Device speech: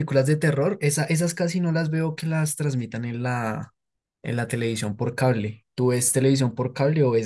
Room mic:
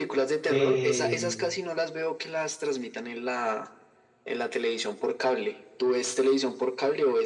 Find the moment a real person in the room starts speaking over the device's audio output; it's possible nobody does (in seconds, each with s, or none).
0.4 s